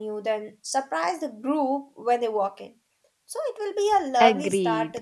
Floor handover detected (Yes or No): Yes